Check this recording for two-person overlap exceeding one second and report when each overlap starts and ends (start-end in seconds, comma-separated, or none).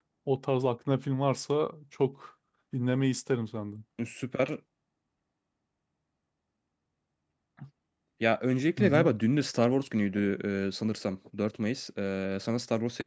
none